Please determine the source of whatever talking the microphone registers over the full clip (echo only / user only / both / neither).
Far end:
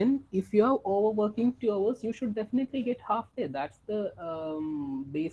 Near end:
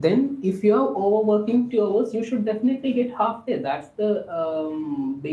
echo only